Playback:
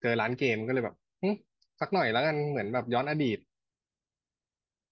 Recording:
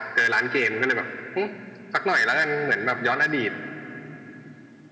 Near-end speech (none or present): none